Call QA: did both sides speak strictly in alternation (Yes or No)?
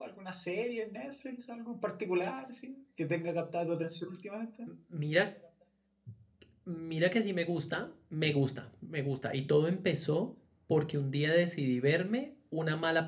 Yes